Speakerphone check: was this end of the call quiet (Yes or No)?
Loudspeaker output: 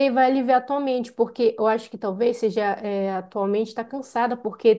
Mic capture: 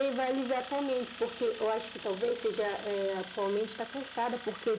Yes